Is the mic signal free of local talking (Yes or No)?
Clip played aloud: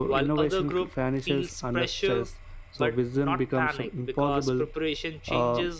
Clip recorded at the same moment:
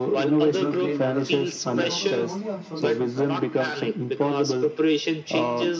No